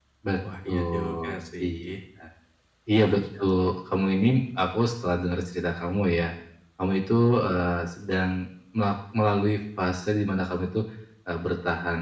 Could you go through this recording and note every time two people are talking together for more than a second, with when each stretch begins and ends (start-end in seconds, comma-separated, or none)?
0.7-1.9